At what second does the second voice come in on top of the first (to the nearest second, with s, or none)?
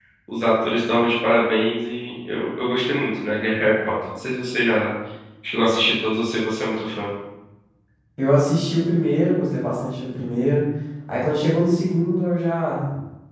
none